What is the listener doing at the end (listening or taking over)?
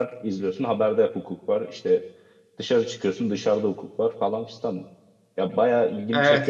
taking over